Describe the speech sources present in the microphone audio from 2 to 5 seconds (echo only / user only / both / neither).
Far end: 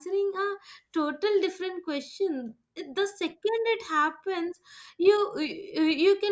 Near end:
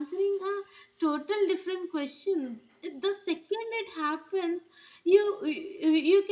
echo only